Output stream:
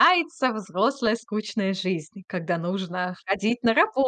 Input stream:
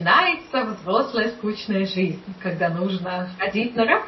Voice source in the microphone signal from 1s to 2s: echo only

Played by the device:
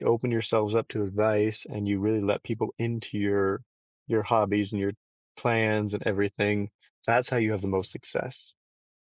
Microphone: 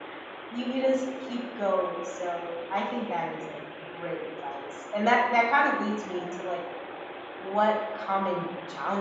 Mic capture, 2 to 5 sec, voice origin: user only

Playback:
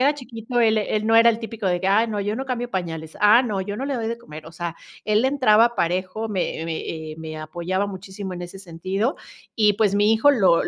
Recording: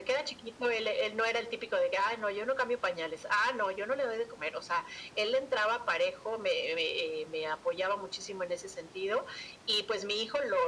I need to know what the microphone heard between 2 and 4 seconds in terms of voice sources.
echo only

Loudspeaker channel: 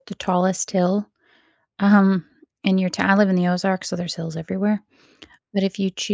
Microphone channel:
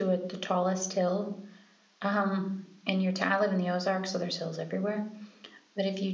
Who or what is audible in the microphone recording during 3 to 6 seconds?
echo only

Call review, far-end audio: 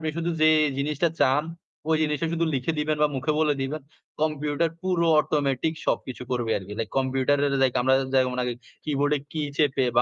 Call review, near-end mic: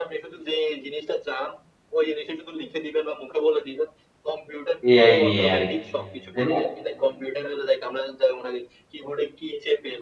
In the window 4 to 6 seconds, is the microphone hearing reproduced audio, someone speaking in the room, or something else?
both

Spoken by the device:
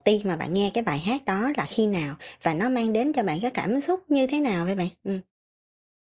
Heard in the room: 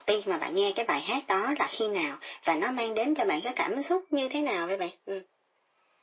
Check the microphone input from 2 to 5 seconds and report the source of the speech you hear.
echo only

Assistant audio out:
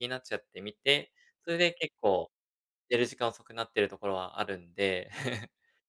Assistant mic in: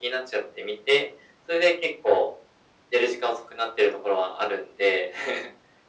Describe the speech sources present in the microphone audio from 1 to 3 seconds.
echo only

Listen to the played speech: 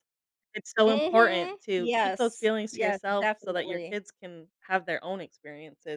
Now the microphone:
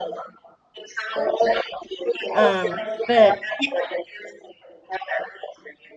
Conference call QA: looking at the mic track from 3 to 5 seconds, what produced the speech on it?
both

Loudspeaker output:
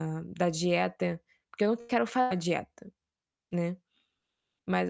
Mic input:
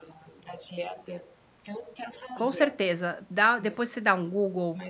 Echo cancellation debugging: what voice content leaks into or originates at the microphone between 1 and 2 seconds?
echo only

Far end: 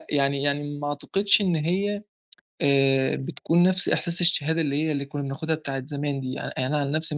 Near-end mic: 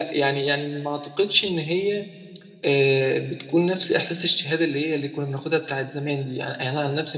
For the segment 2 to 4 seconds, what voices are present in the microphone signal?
echo only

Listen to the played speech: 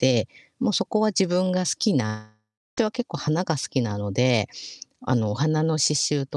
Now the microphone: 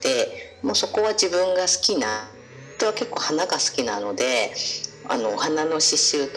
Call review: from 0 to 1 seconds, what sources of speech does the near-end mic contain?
echo only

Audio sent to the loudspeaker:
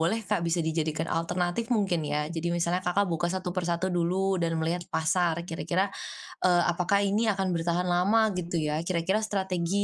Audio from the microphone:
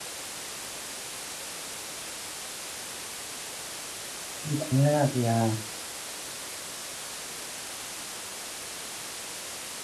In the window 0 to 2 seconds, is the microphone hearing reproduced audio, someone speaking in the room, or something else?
neither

